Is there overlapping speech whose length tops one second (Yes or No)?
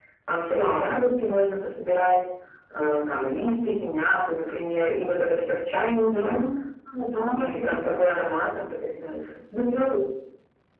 No